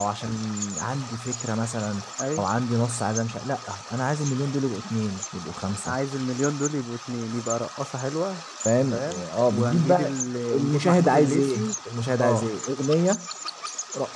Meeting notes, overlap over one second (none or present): present